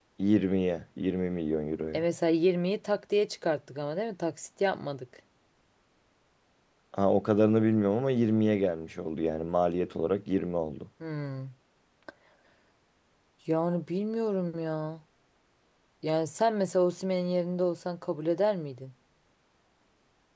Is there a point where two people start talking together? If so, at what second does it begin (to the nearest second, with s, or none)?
none